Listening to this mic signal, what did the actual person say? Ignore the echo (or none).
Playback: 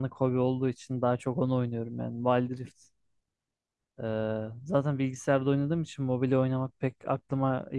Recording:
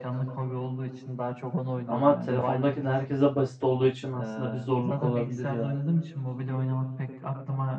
Ama telefondaki de herkese basit olduğu için aslında bir zorluk olabilir ya.